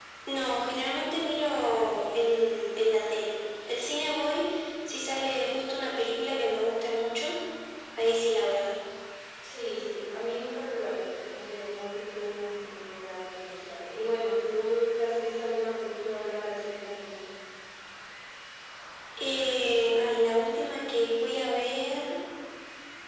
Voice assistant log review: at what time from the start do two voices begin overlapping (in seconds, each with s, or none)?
none